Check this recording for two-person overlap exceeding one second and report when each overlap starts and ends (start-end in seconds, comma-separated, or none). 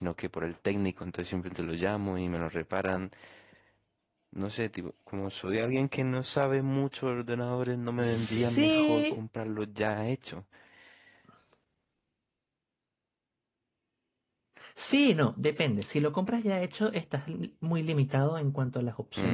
8.0-9.2